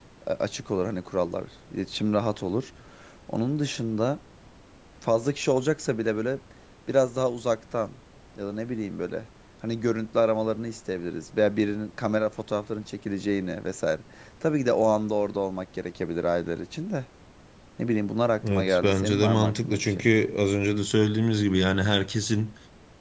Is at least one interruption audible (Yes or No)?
Yes